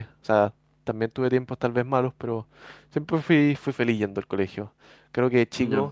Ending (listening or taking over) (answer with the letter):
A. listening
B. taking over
A